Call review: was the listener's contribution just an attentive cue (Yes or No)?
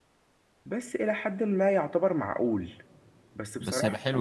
No